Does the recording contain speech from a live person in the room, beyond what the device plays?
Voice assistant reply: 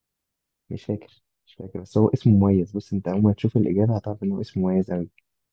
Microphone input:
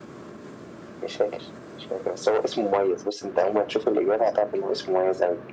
No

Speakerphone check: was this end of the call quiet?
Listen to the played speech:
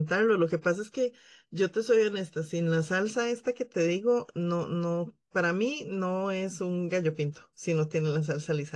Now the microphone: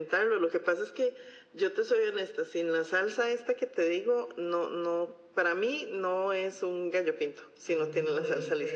No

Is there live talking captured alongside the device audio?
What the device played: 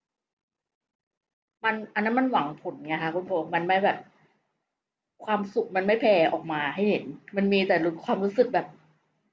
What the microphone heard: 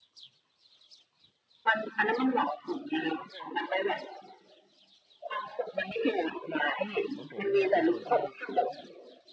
Yes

